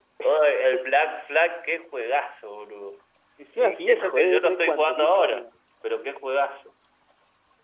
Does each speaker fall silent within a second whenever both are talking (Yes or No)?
No